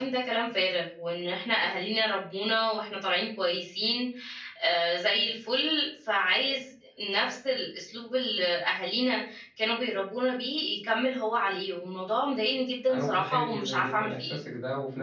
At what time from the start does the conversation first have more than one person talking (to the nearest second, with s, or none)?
13 s